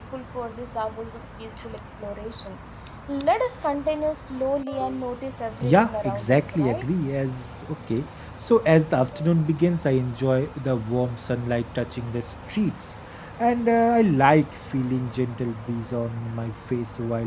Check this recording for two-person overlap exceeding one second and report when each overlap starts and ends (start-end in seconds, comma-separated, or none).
5.6-6.8